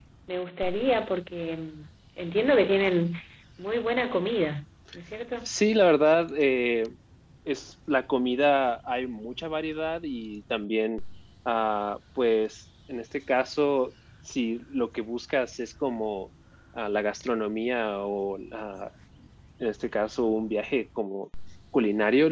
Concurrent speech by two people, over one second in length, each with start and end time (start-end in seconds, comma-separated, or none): none